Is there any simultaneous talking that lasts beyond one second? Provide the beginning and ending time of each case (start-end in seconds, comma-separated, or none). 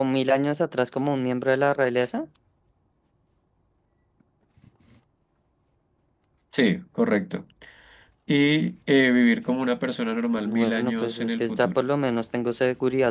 10.4-11.8